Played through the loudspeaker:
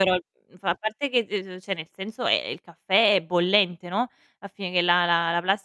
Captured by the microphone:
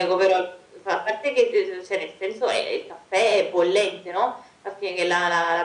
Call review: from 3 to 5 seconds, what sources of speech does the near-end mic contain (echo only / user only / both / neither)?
echo only